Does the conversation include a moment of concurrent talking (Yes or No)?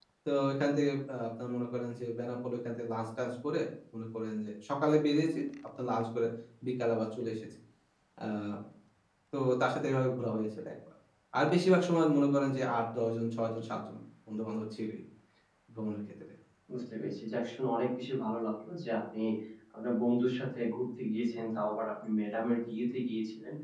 No